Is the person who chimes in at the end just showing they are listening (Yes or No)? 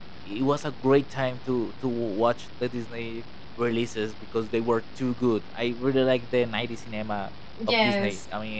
Yes